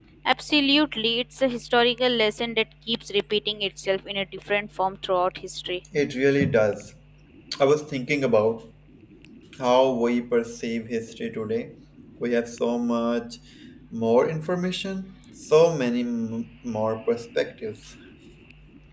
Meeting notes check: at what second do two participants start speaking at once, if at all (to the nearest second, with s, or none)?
none